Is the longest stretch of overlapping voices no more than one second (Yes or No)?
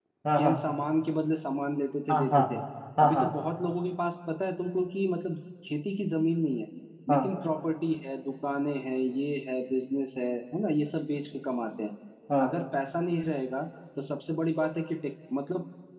Yes